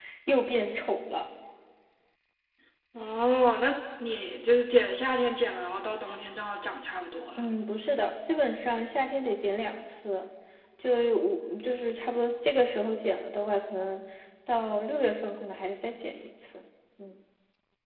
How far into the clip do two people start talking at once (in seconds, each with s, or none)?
none